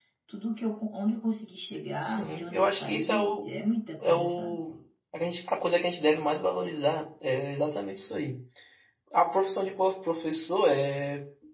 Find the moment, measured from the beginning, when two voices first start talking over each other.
2 s

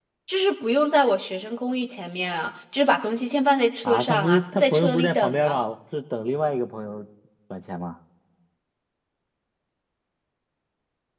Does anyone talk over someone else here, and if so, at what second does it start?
4 s

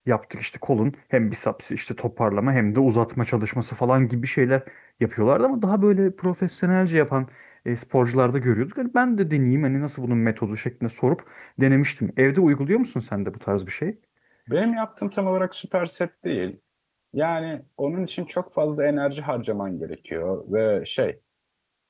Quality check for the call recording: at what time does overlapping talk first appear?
none

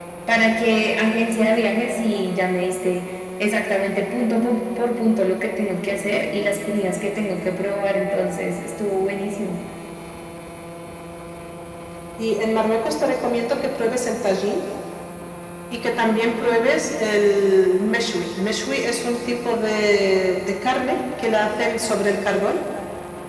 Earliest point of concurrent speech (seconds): none

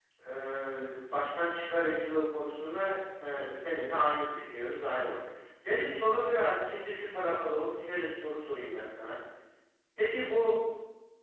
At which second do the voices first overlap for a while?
none

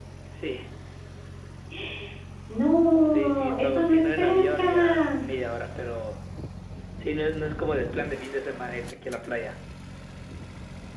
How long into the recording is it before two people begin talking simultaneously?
3 s

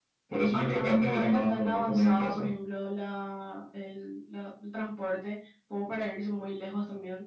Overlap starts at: 1 s

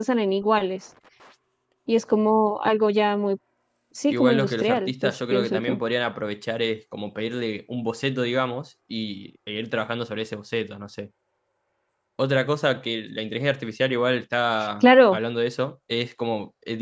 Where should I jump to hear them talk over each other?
4 s

